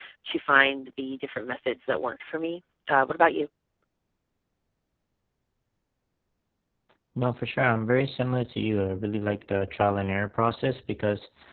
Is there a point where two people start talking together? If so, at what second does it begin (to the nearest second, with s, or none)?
none